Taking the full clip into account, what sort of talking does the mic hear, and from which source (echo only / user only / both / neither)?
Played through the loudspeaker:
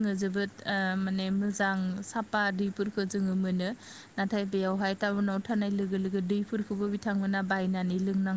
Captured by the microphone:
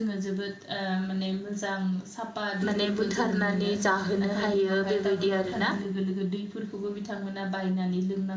both